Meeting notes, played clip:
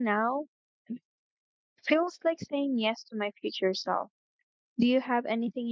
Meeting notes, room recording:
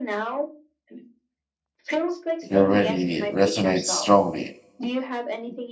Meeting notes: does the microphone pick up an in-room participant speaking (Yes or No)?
Yes